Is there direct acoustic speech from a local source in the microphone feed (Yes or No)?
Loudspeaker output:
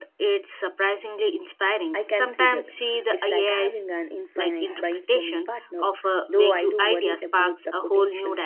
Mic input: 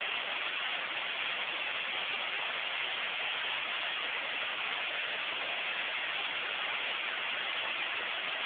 No